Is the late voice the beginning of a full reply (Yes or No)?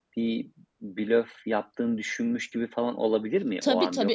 Yes